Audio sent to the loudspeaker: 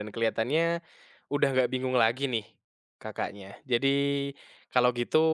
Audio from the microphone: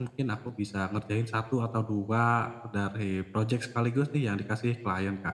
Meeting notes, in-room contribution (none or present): present